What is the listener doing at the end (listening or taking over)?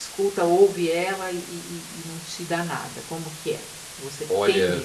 taking over